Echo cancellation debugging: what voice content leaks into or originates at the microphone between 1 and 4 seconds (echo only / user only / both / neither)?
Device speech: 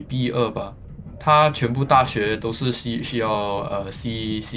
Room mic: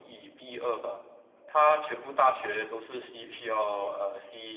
echo only